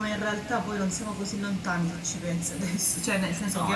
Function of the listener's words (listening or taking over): taking over